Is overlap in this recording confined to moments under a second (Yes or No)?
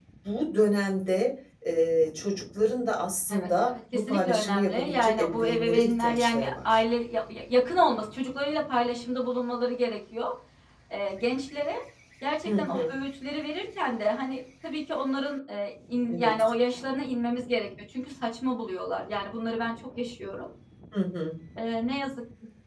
No